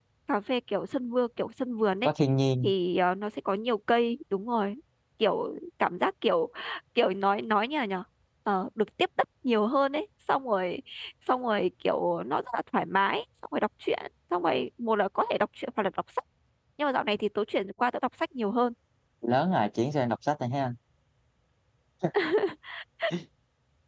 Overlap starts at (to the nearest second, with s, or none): none